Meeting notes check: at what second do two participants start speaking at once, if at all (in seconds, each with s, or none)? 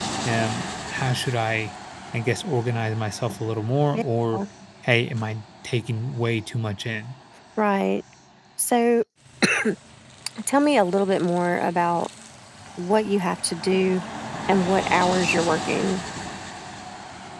none